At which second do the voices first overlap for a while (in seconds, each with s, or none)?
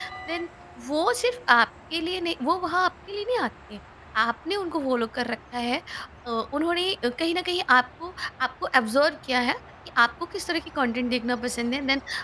none